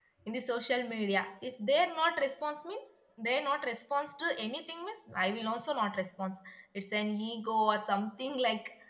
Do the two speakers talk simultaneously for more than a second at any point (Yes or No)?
No